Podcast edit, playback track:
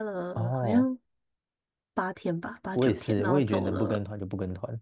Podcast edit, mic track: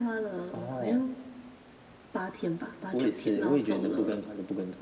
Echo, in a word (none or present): present